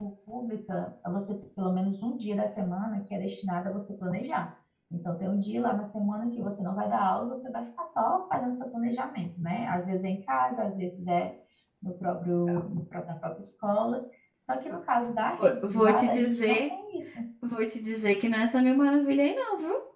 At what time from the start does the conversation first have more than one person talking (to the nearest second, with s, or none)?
15 s